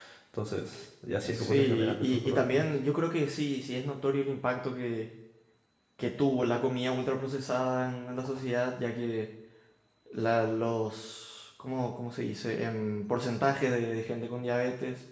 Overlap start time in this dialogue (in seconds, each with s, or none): 1.3 s